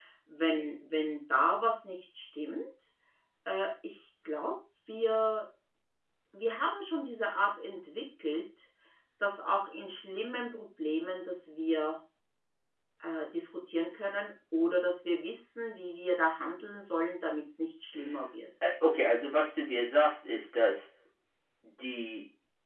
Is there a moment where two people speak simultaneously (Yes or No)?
No